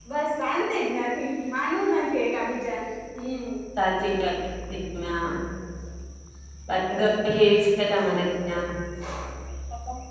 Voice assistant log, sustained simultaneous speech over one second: none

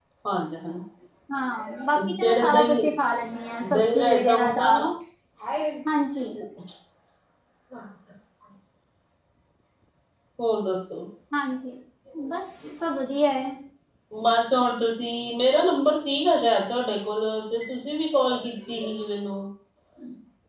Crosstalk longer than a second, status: present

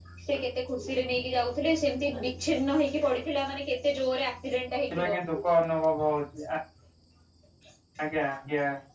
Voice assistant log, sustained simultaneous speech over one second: none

